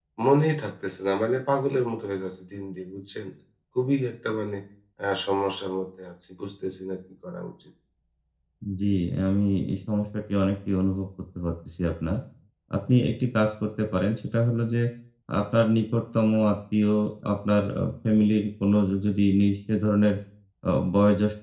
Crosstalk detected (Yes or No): No